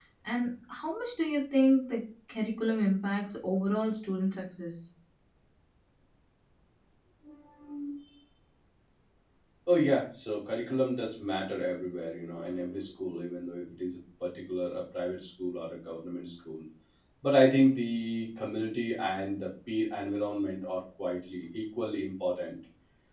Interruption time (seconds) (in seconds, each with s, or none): none